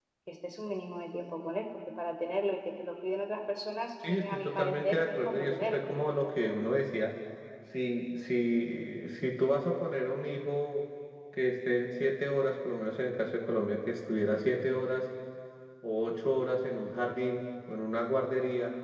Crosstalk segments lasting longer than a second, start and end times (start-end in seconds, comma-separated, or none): 4.0-5.8